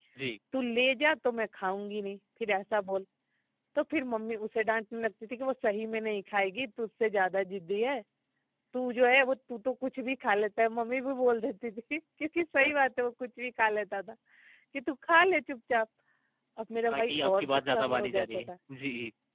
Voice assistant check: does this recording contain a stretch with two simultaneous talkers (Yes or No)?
Yes